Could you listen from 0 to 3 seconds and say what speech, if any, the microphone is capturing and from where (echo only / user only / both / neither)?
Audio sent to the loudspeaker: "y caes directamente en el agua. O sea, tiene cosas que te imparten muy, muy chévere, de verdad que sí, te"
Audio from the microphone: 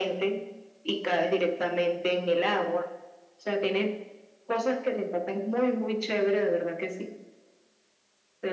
echo only